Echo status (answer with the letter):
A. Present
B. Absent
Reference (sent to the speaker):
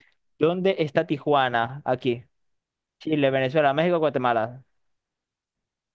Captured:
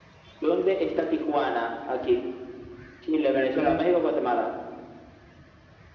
A